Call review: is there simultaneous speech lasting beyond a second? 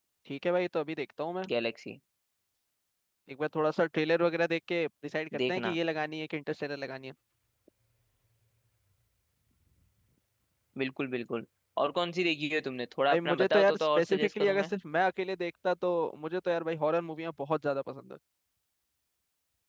Yes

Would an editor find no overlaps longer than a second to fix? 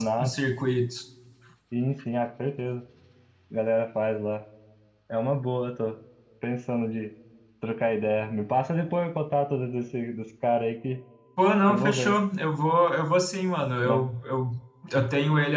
Yes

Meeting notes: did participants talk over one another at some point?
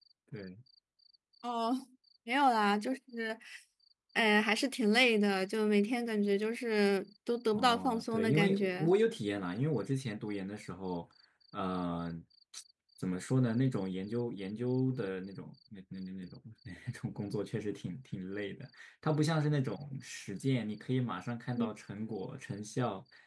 Yes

